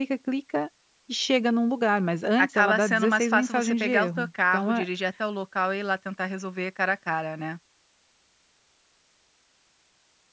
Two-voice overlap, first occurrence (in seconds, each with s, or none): 2.4 s